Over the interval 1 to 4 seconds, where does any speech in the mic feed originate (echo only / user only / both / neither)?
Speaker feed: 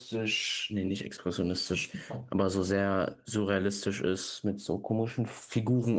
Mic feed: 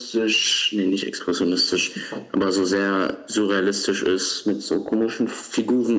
echo only